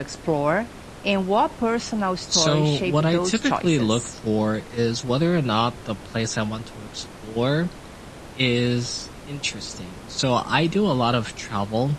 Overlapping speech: Yes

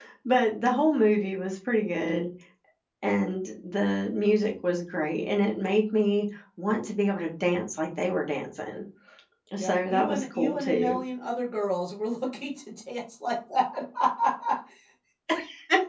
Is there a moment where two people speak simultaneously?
Yes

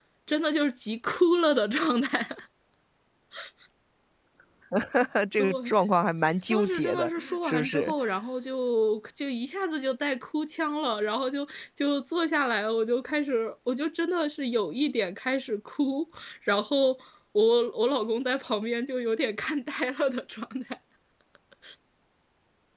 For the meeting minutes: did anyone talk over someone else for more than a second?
Yes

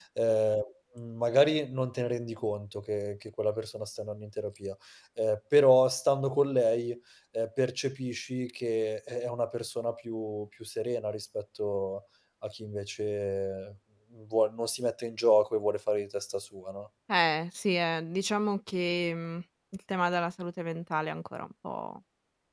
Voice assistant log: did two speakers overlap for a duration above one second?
No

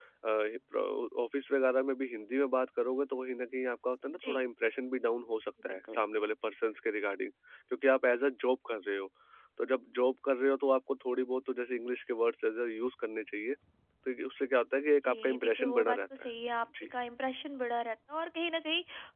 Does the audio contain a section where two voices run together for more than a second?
Yes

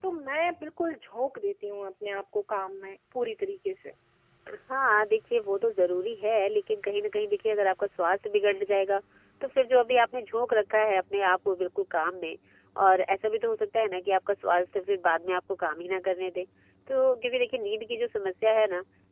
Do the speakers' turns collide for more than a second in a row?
No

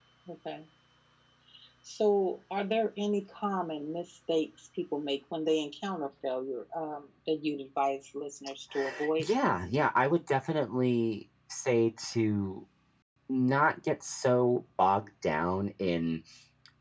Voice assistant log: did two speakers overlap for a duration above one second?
No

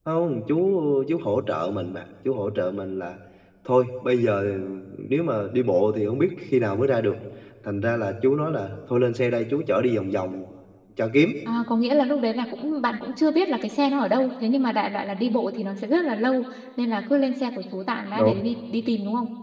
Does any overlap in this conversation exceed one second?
No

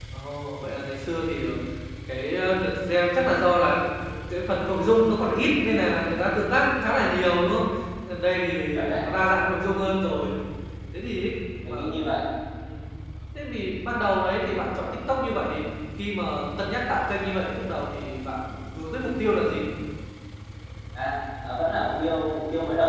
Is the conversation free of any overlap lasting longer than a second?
Yes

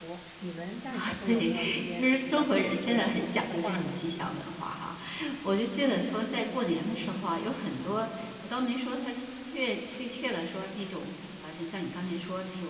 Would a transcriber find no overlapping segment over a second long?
No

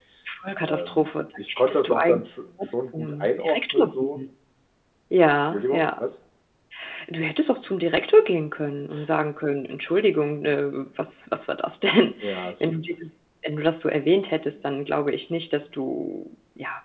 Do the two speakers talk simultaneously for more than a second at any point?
Yes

